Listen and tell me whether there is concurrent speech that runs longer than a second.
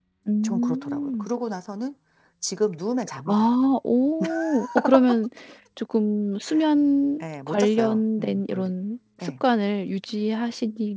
Yes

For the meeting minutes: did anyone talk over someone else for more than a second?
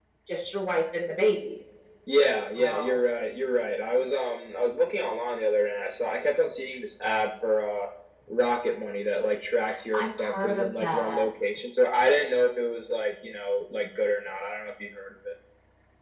Yes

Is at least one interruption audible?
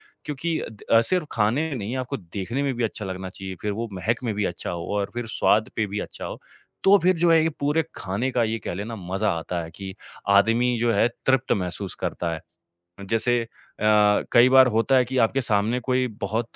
No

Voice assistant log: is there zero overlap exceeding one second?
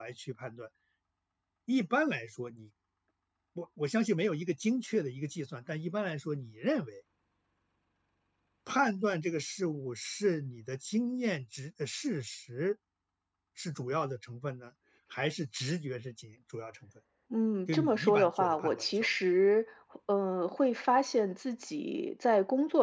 No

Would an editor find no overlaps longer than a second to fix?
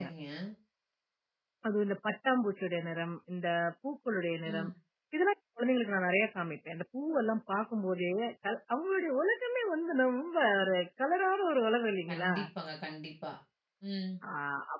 Yes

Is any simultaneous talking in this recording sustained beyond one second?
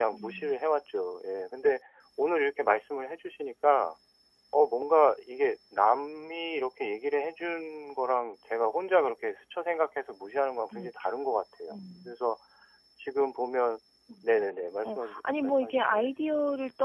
Yes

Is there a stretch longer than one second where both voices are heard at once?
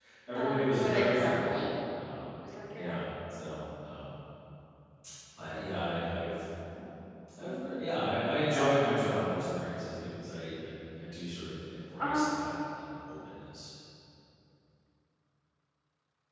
Yes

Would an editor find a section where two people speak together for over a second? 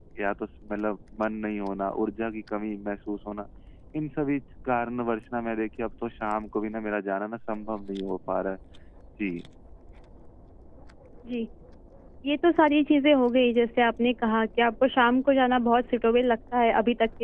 No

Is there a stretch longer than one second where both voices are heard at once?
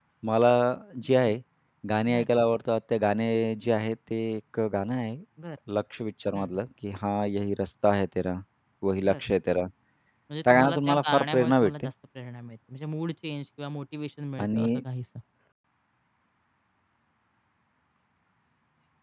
Yes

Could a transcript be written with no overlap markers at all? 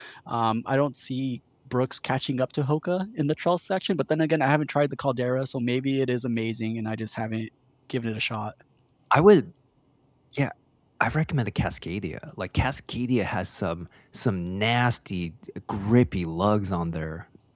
Yes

